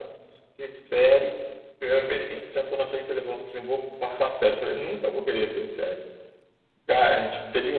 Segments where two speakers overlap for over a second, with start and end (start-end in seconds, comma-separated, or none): none